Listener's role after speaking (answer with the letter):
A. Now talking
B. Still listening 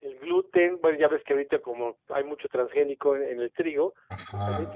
B